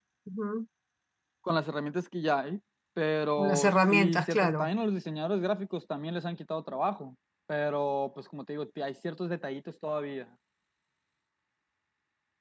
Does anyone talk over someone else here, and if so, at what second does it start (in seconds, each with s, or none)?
3.4 s